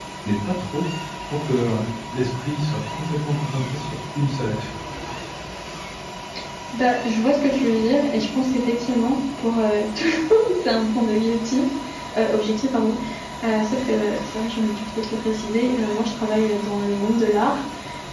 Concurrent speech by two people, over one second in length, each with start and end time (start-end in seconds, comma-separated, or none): none